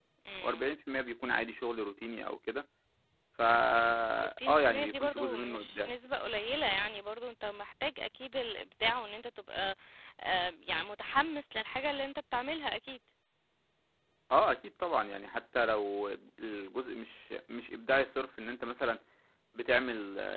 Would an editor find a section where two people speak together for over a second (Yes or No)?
Yes